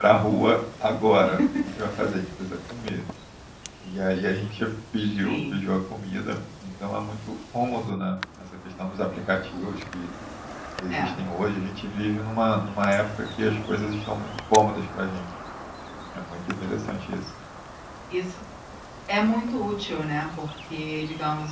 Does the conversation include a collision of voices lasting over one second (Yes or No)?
No